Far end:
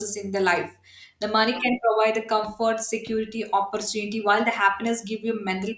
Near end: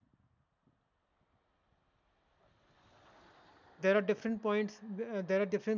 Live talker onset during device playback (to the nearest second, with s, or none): 4 s